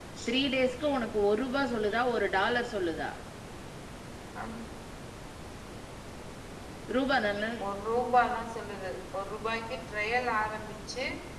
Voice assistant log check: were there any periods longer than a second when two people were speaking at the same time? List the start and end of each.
none

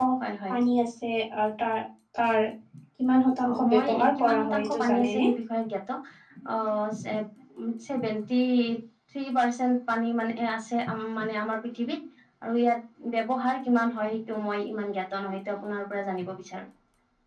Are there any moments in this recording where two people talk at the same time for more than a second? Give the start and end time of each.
3.5-5.3

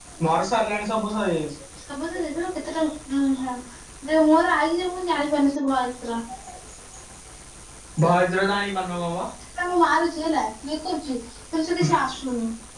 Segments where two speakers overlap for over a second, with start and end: none

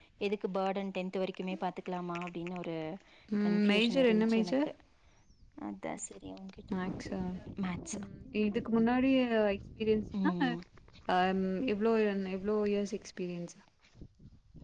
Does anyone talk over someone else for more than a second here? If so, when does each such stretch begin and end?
3.4-4.7

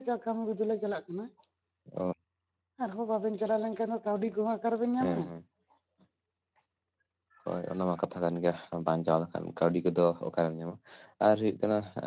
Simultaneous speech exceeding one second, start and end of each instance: none

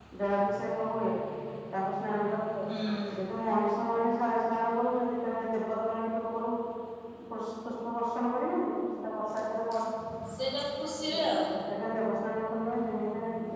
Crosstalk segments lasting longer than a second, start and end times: none

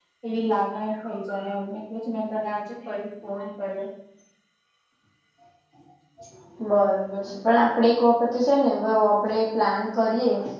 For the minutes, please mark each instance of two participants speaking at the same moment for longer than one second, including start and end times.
none

